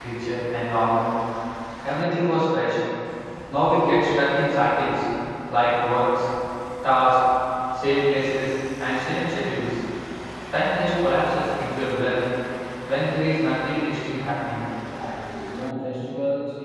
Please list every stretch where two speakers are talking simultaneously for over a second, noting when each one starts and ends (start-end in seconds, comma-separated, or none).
none